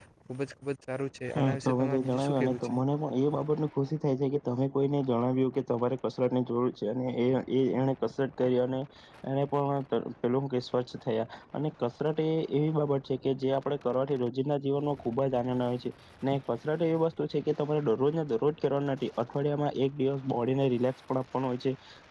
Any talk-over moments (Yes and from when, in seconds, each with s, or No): Yes, from 1.3 s